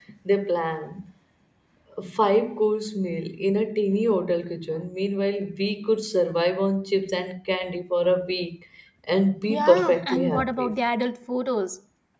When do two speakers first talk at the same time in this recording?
9.5 s

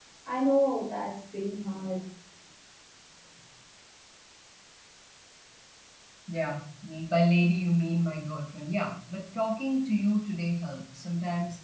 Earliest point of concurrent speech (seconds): none

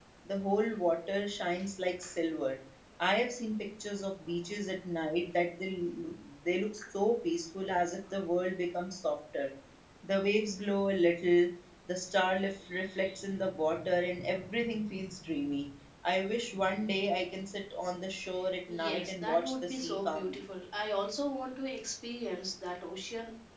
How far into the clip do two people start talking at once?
18.7 s

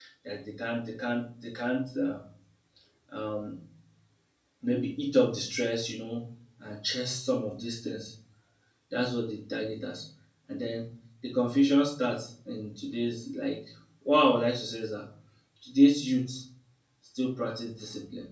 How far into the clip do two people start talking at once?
none

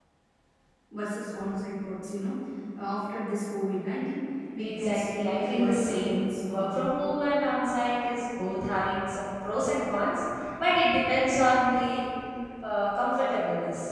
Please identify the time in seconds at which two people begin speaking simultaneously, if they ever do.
4.6 s

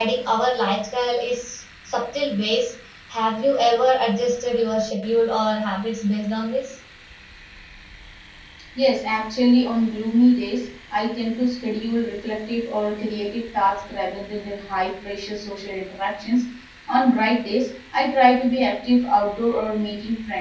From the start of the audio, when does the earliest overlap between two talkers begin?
none

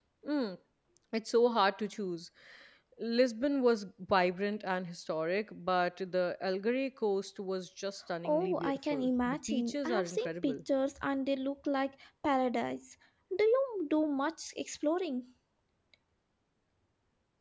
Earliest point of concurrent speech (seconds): 8.2 s

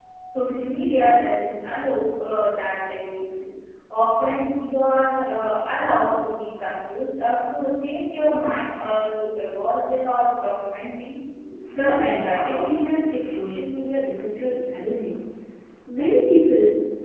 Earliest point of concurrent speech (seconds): 11.7 s

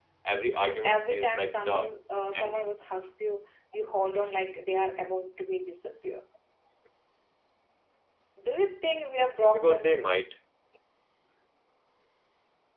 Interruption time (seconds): 0.6 s

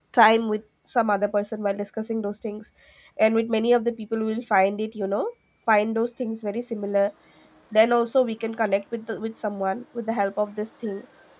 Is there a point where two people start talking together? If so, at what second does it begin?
none

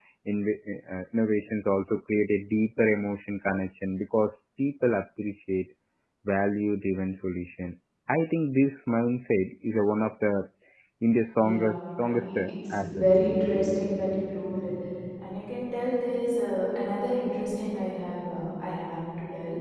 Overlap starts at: 11.4 s

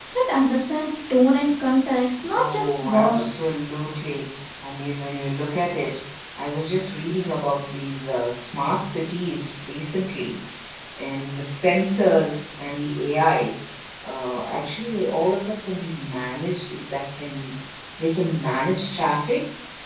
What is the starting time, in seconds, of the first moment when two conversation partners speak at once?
2.3 s

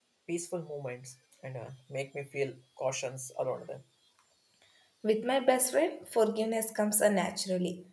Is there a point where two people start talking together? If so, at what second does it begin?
none

